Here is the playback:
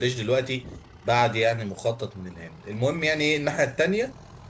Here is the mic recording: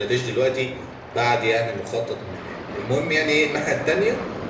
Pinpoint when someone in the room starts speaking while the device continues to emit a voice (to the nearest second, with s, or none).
none